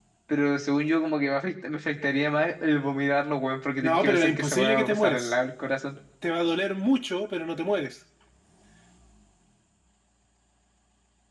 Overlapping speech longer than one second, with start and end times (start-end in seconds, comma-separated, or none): 3.8-5.3